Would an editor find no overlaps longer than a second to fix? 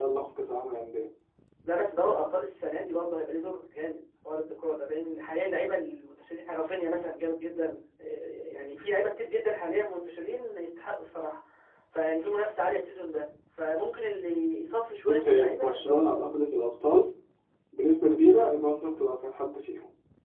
No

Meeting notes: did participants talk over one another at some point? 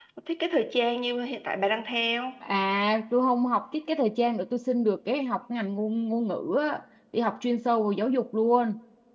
No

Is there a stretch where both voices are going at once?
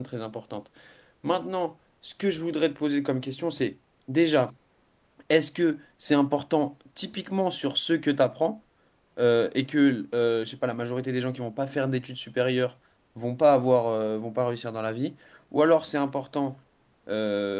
No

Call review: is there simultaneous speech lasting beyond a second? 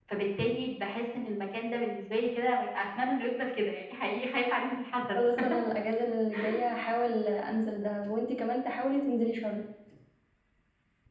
No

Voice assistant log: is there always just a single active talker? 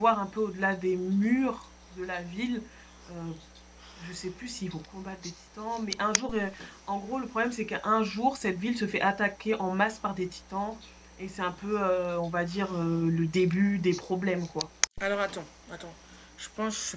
Yes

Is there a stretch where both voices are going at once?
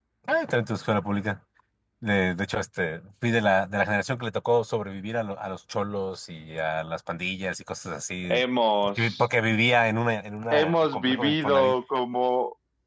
Yes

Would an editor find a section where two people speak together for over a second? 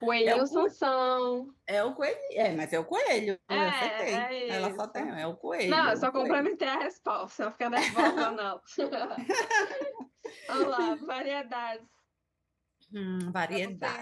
Yes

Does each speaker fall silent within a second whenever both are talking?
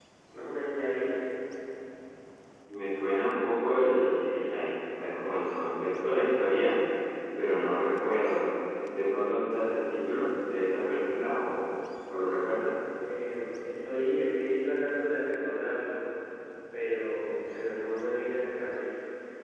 Yes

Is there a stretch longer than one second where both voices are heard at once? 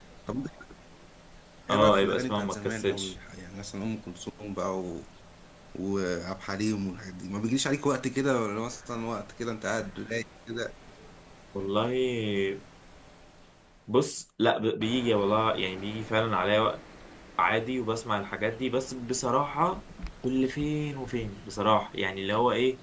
Yes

